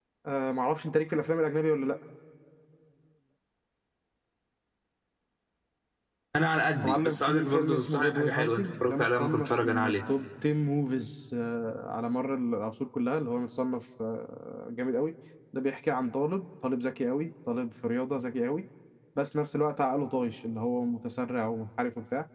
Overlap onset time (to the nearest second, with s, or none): 7 s